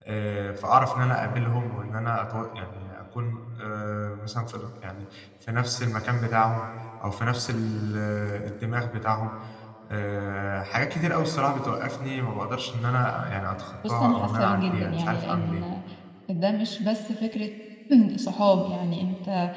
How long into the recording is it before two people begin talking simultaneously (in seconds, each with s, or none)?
13.8 s